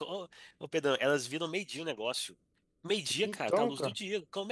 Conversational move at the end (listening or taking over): listening